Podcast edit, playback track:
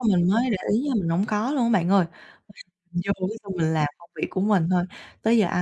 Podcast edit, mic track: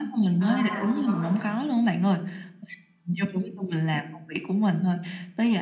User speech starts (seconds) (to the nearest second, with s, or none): 0 s